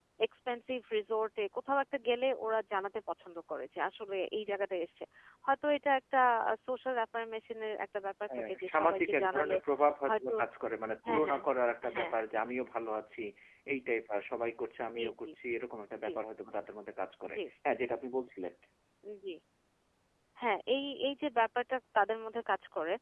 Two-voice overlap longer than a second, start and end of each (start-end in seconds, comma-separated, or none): 8.3-9.6